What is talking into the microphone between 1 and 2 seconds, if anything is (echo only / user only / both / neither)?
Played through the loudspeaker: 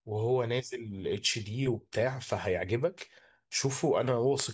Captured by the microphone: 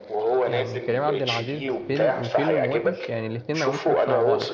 both